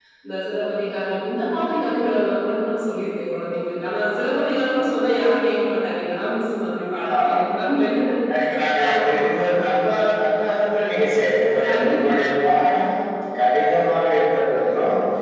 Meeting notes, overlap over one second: none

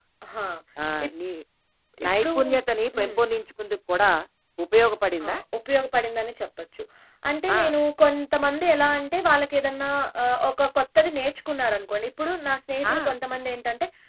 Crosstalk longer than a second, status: none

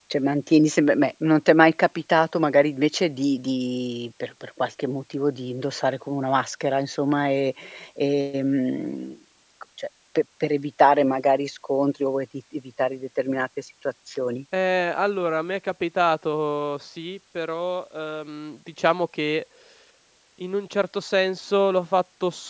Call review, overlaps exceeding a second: none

